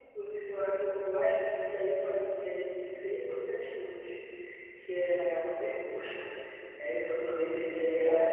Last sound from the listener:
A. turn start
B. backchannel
B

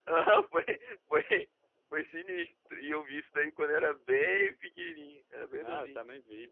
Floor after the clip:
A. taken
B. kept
A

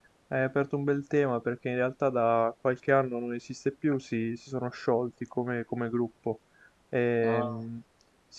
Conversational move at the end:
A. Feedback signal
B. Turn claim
A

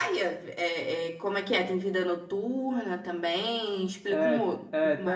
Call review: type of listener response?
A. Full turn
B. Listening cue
A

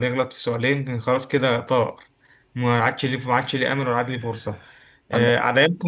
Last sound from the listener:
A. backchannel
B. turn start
A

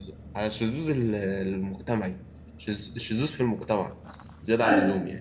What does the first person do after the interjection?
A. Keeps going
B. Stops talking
B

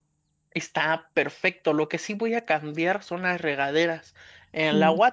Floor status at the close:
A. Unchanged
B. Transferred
A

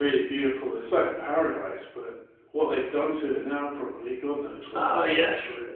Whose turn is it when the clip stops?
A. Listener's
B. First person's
A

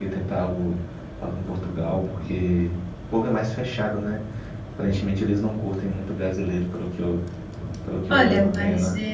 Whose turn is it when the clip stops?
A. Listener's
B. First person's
A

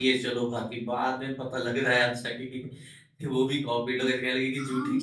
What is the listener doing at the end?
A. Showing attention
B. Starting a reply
B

